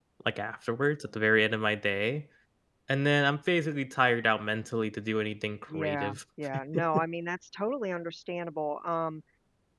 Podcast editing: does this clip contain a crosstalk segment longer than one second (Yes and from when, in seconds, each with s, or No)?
No